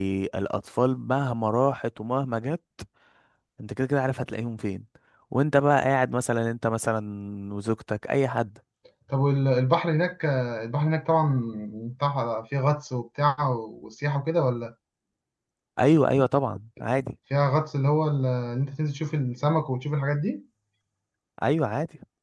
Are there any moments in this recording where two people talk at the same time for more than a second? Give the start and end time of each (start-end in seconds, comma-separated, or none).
none